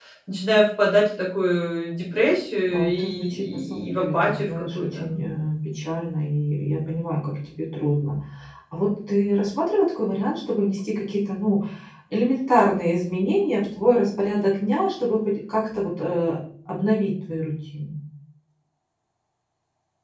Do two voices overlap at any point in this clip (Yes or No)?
Yes